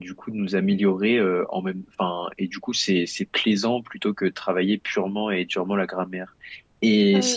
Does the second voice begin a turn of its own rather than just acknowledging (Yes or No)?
No